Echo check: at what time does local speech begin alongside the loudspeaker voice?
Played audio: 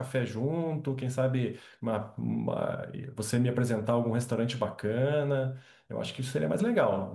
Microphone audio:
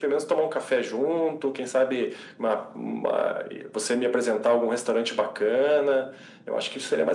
none

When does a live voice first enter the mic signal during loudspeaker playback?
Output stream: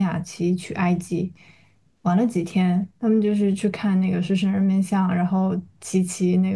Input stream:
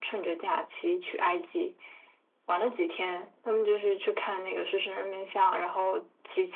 none

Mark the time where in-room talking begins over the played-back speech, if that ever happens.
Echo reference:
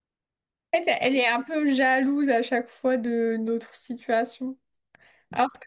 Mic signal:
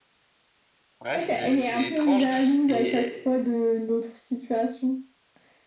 1.0 s

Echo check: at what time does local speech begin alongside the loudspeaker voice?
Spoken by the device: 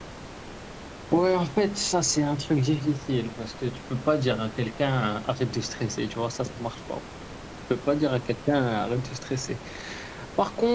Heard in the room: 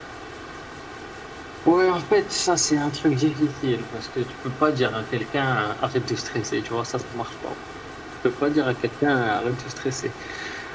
none

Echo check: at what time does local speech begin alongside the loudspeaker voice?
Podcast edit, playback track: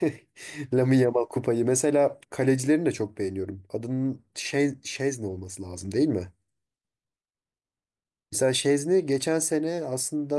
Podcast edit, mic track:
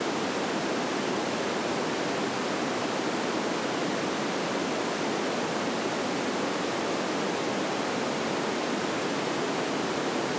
none

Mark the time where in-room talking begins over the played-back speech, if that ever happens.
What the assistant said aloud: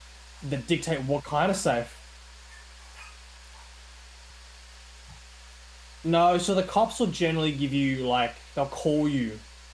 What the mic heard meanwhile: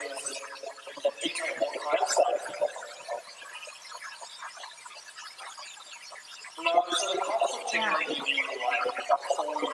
7.7 s

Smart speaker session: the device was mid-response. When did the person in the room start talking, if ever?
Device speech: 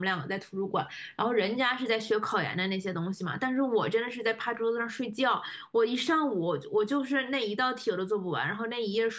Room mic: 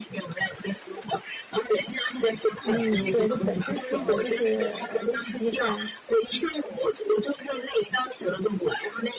2.6 s

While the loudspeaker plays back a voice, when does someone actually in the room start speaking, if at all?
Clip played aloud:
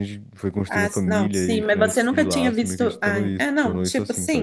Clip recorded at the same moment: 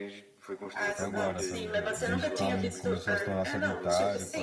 0.8 s

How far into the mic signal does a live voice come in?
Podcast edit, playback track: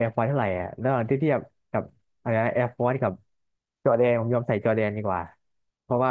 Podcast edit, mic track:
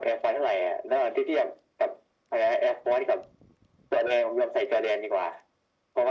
none

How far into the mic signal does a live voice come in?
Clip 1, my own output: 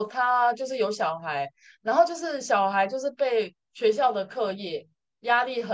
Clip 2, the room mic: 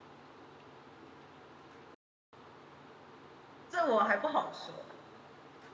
3.7 s

